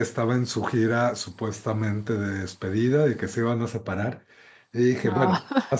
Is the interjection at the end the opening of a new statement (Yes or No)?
No